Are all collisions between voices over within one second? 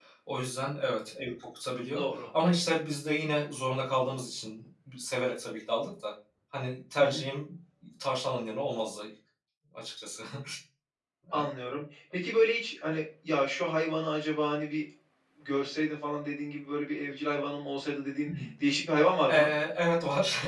Yes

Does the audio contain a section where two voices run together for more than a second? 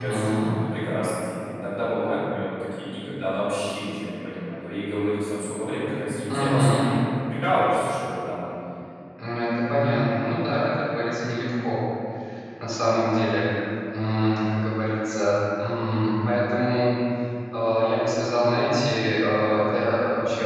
No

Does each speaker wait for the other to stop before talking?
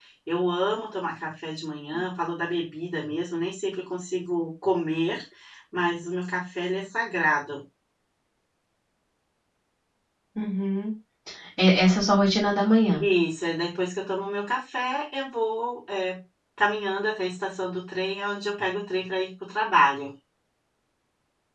Yes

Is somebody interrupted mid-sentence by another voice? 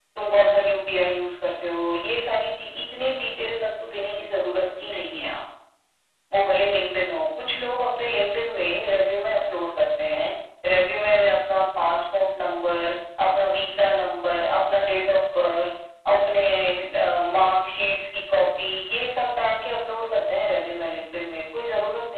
No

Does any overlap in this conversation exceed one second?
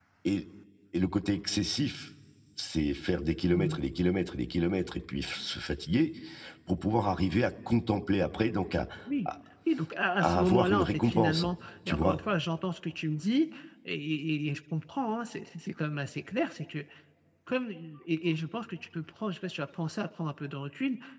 Yes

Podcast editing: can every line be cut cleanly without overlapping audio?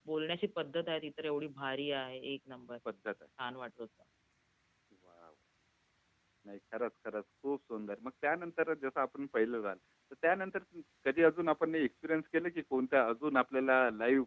Yes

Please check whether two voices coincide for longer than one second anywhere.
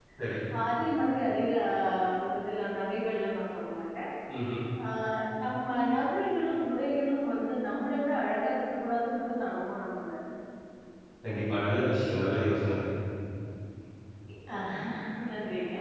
No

